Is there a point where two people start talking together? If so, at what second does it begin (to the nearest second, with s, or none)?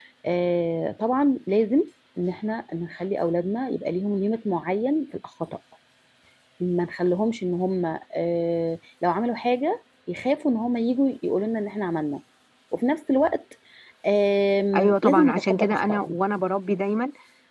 15 s